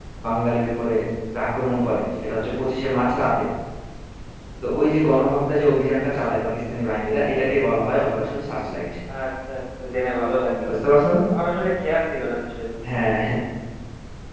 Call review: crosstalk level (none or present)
none